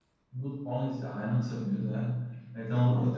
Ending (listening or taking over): listening